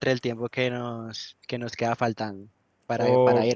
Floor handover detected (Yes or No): Yes